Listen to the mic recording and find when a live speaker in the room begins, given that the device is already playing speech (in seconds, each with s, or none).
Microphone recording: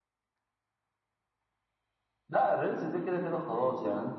none